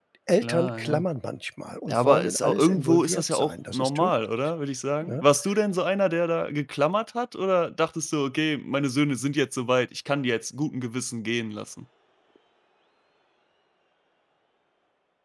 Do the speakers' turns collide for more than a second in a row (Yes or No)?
Yes